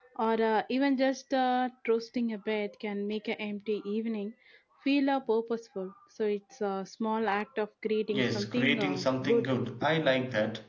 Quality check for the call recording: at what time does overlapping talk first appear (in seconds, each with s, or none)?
8.1 s